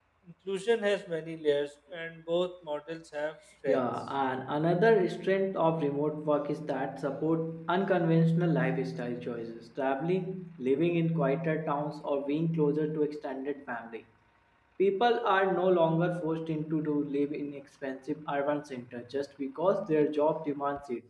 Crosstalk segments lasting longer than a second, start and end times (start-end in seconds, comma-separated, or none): none